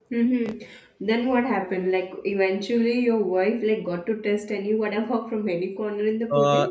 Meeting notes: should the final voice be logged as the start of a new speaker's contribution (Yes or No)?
Yes